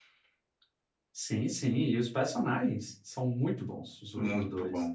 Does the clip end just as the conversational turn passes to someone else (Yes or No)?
Yes